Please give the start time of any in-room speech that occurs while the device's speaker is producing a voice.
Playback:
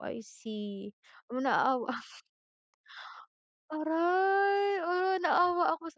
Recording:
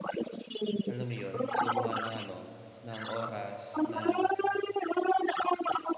0.9 s

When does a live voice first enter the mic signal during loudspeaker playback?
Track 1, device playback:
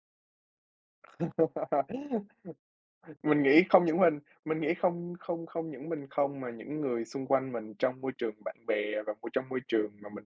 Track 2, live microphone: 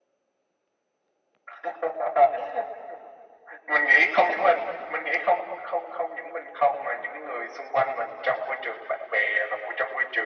none

